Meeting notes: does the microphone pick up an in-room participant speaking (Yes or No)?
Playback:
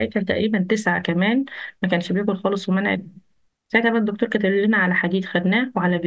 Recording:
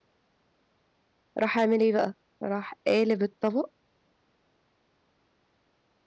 Yes